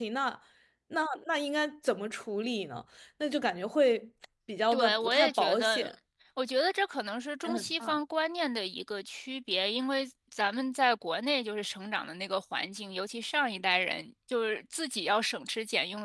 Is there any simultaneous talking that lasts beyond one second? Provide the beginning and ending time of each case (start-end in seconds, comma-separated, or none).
4.7-5.9